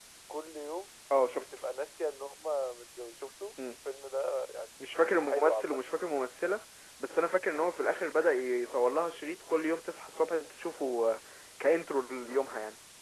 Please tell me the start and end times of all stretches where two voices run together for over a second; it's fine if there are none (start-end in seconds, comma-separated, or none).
none